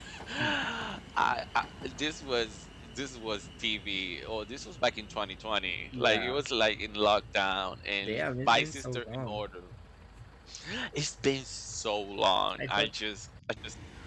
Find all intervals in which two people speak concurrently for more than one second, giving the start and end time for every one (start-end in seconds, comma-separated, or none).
8.0-9.4